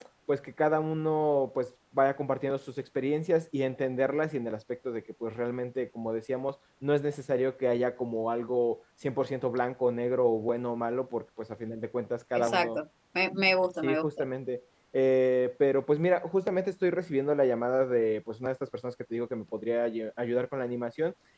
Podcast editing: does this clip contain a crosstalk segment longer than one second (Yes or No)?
No